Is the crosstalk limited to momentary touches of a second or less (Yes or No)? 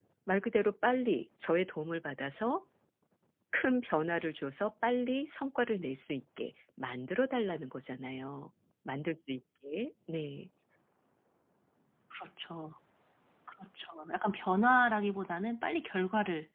Yes